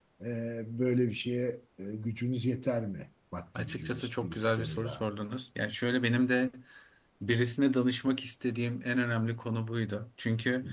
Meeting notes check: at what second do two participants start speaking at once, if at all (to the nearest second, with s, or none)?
4 s